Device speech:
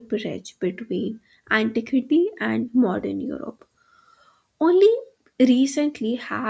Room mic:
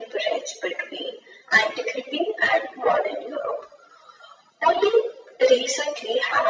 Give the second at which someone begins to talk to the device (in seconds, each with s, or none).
none